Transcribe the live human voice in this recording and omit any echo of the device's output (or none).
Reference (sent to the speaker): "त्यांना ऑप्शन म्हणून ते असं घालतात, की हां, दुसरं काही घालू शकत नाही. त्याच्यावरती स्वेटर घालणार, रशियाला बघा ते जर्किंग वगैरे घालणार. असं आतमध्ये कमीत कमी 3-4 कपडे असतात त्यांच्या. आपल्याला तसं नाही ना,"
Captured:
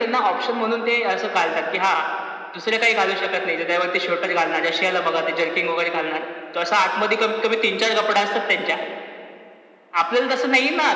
none